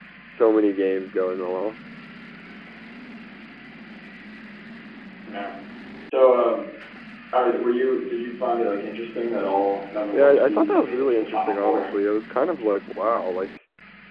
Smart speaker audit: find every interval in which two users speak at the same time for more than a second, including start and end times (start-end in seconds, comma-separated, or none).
10.1-11.8